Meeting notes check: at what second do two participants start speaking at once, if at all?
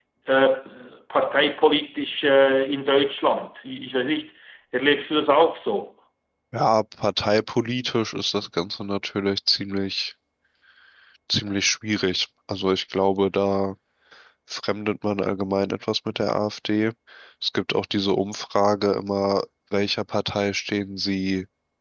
none

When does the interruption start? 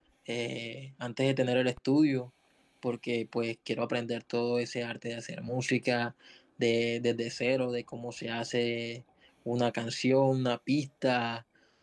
none

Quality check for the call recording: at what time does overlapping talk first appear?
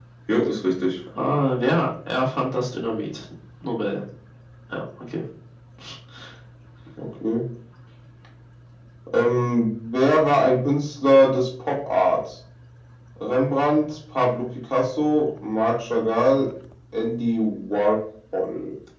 none

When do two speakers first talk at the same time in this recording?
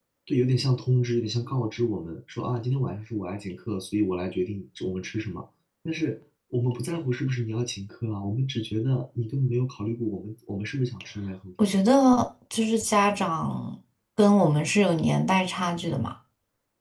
none

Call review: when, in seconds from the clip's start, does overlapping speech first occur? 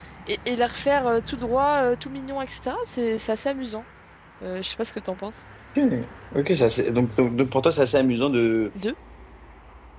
none

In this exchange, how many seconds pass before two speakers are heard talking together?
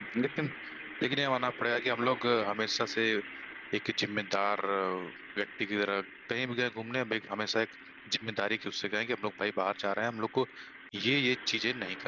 none

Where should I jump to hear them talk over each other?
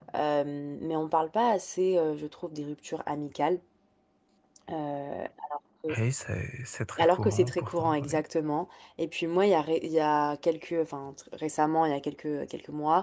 7.0 s

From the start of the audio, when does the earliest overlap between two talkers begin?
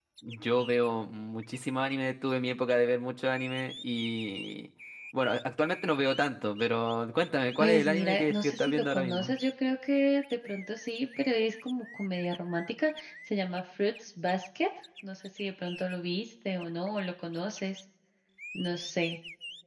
7.6 s

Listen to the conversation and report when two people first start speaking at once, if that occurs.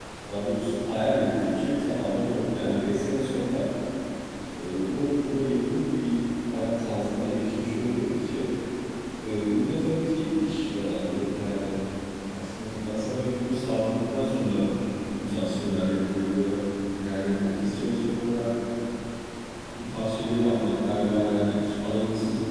none

